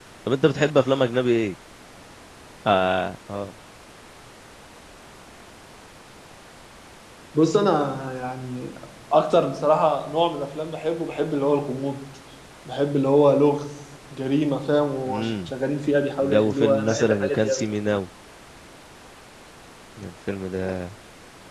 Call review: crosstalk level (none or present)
present